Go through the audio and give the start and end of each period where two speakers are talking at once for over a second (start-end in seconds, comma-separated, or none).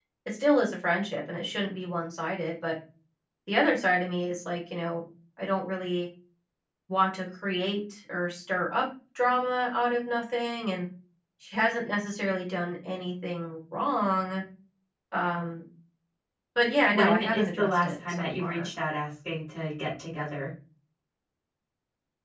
16.9-18.7